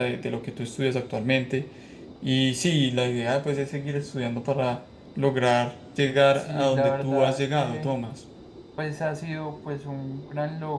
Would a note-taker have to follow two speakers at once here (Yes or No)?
Yes